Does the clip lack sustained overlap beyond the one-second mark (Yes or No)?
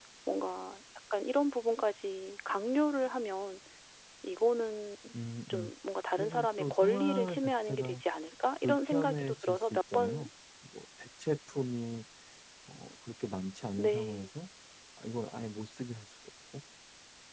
No